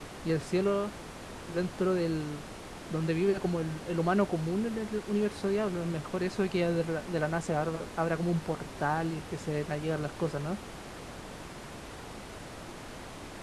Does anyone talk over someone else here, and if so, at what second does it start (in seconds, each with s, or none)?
none